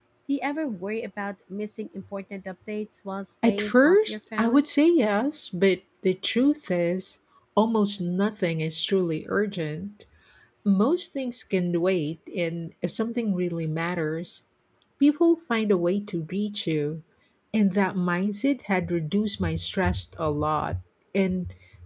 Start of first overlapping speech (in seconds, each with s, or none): 3.4 s